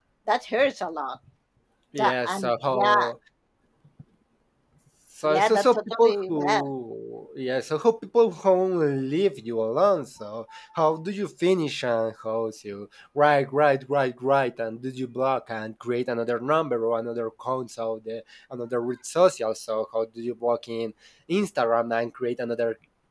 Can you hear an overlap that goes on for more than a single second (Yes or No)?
Yes